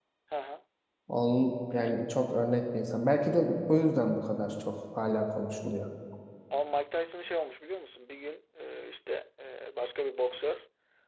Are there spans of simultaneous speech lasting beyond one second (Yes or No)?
No